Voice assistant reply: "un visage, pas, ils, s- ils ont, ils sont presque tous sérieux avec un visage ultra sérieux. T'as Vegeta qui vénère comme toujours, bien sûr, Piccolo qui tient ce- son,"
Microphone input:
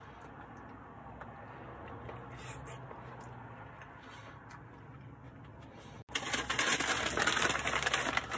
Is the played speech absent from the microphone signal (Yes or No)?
Yes